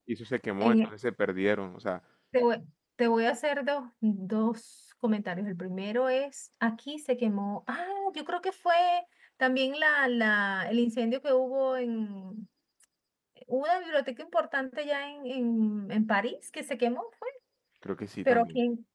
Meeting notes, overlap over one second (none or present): none